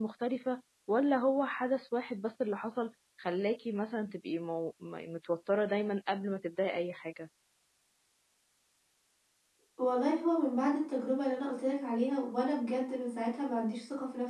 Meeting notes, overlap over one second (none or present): none